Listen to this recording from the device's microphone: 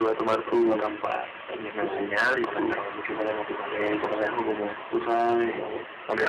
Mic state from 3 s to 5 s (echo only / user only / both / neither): echo only